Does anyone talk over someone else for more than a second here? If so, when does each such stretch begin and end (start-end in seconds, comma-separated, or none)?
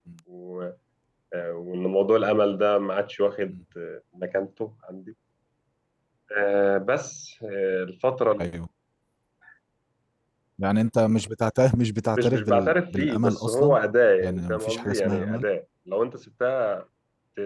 12.2-13.8, 14.2-15.4